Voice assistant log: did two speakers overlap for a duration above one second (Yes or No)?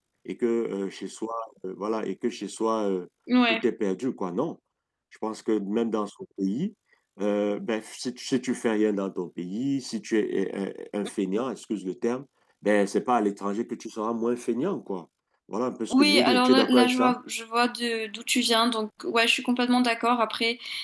Yes